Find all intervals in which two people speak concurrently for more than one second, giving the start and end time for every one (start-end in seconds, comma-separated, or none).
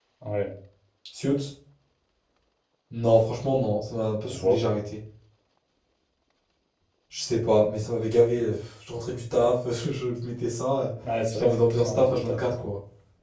11.3-12.6